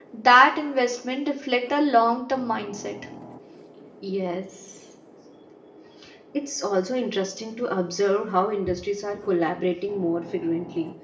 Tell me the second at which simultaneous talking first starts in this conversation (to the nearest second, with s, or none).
none